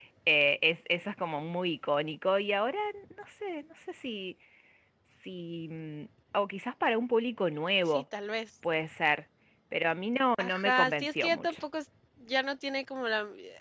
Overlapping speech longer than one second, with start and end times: 10.4-11.6

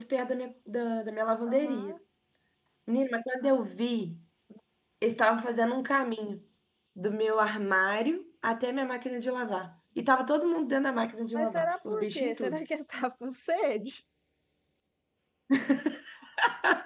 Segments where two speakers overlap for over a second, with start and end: 11.3-12.6

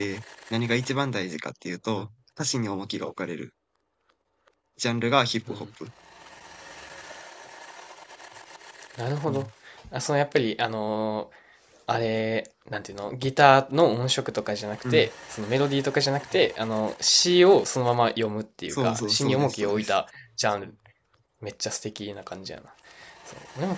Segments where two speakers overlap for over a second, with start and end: 18.7-19.9

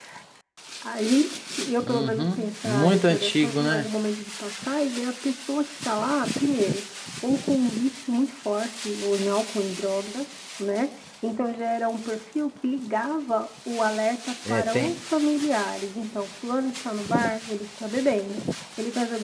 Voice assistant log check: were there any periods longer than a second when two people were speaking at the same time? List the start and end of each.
1.8-3.9

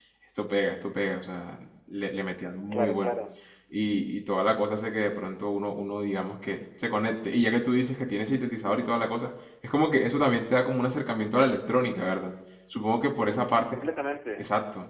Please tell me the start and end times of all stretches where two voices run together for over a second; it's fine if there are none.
none

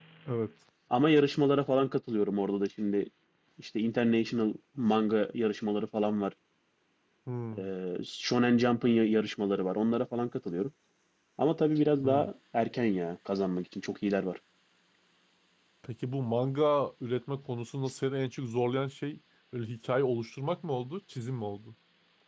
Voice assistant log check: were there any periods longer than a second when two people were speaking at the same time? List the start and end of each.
none

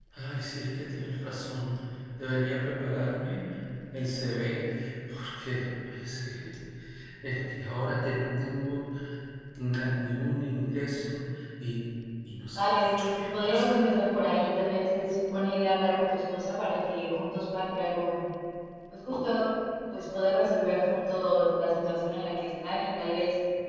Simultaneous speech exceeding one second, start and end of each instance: 12.5-13.7

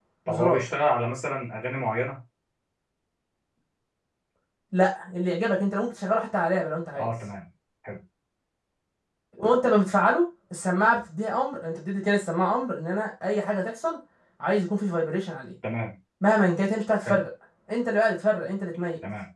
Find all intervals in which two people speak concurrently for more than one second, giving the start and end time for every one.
none

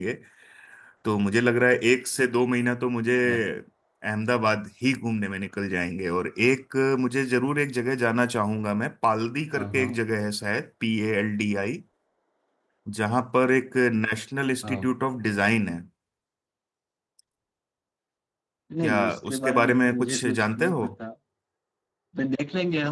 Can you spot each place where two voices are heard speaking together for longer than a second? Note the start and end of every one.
18.8-20.8

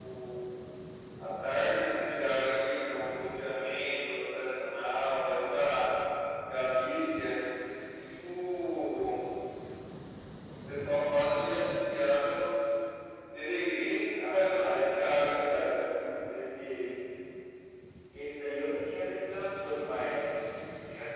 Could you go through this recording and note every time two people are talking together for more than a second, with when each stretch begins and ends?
14.2-15.8

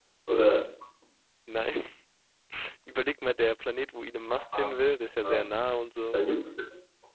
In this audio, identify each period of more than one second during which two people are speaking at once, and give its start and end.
none

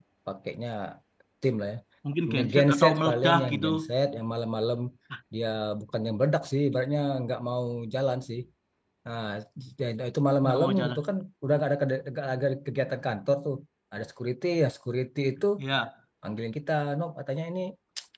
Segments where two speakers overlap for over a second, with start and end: 2.3-3.7

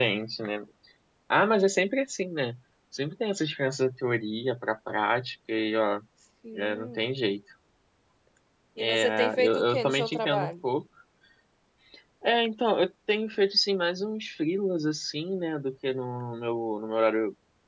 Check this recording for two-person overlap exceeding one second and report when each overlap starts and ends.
8.8-10.5

